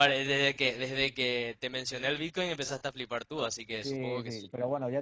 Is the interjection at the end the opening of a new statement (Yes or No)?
Yes